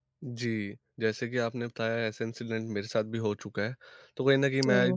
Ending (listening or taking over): listening